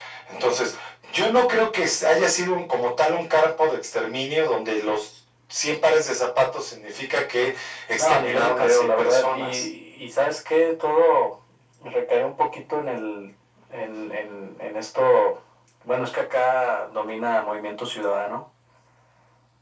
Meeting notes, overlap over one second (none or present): present